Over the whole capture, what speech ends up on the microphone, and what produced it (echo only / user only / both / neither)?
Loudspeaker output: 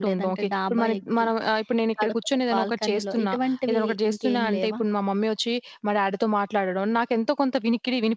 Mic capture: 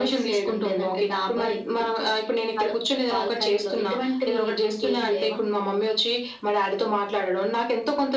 echo only